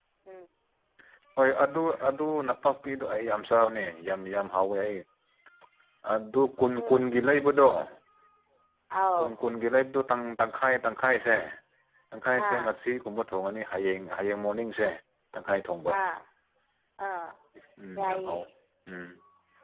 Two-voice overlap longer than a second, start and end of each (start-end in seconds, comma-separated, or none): none